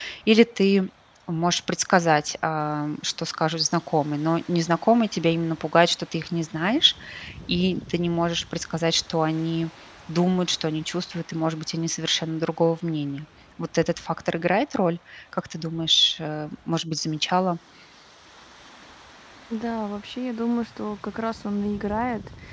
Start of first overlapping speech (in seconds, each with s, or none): none